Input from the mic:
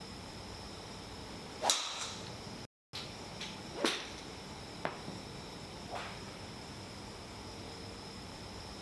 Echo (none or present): none